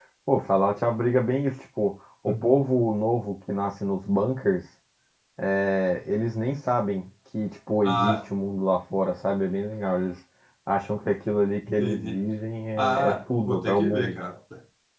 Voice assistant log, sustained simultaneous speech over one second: present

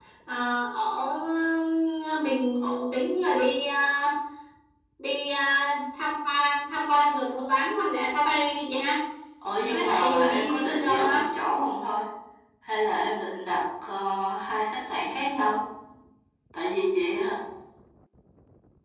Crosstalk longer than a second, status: present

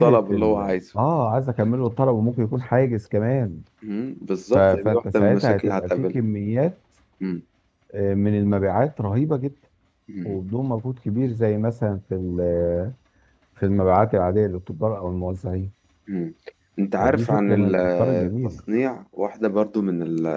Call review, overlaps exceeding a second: present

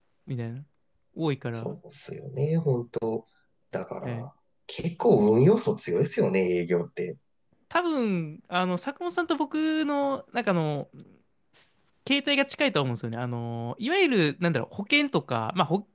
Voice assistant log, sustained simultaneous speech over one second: none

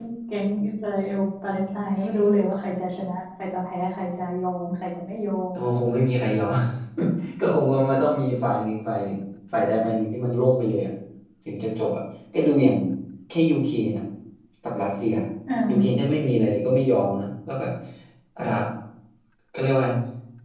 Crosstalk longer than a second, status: none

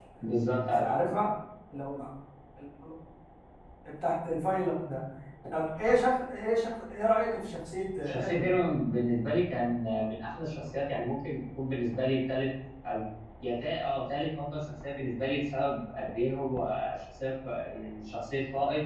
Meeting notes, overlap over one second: none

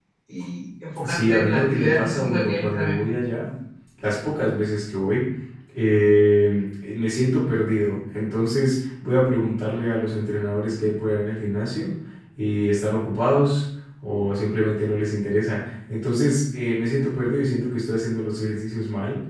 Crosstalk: present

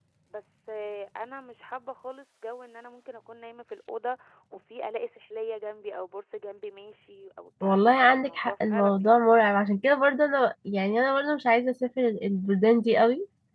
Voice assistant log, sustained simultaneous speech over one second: present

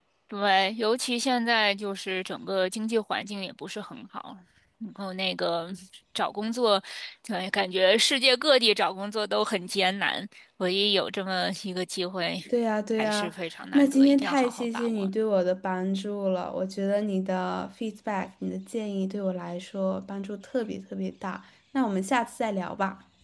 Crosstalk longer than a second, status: present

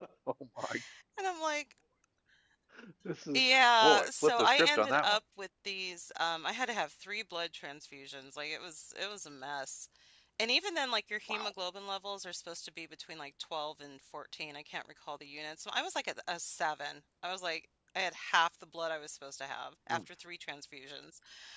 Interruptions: present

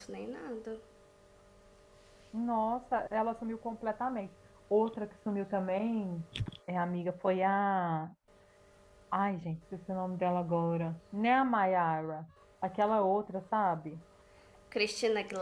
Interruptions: none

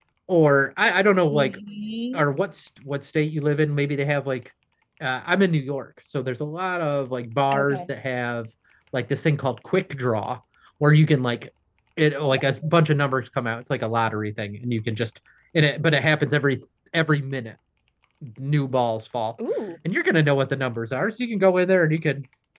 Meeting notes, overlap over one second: none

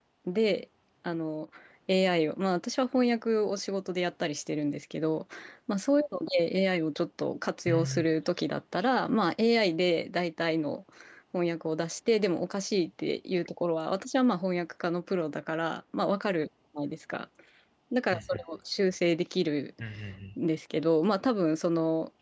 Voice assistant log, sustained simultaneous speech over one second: none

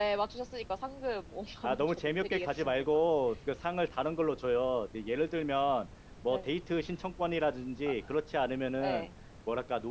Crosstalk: present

